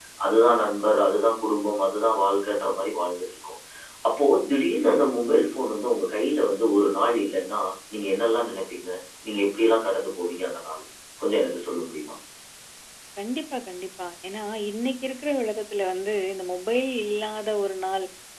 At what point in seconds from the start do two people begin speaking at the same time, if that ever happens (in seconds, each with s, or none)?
none